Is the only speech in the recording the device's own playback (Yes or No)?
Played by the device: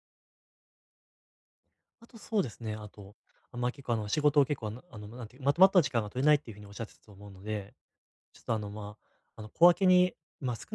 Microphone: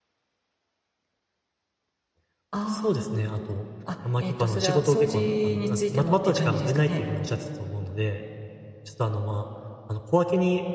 No